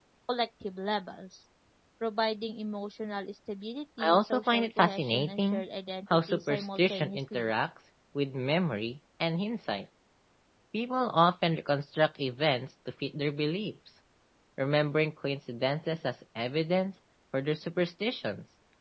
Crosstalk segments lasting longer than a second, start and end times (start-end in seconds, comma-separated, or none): 4.0-5.6, 6.1-7.5